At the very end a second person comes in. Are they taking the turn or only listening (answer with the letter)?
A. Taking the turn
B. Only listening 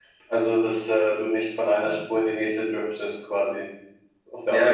A